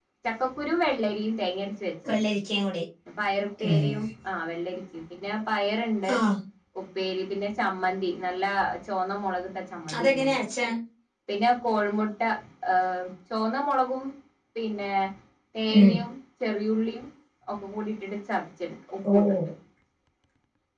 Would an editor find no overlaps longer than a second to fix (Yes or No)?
Yes